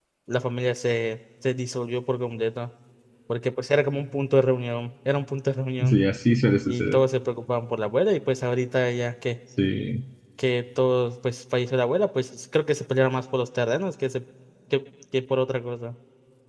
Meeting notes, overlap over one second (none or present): none